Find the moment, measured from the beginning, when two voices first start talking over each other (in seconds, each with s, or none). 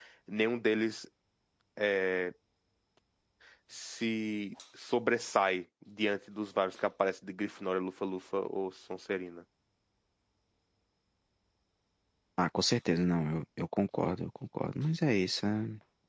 none